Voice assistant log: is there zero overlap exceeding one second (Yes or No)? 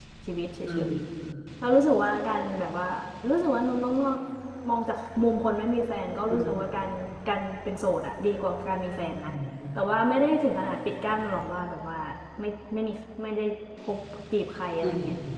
Yes